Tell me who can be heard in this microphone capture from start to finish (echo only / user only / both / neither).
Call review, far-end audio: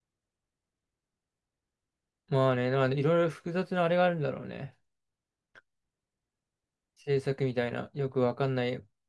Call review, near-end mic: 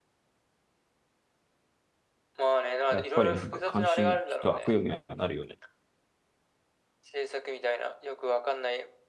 both